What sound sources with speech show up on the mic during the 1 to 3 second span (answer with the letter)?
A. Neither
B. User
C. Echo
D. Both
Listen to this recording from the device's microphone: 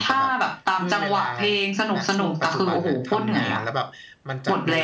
D